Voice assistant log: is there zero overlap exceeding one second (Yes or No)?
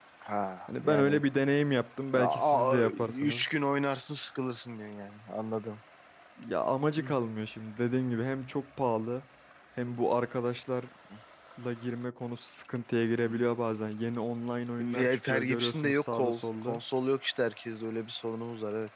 No